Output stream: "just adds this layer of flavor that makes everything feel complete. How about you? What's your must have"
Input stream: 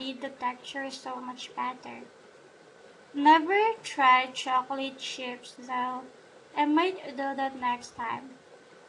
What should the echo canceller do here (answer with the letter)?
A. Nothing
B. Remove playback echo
A